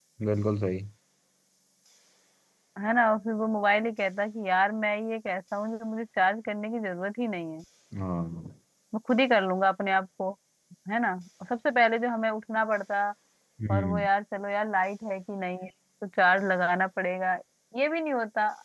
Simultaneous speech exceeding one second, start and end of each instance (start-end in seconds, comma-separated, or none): none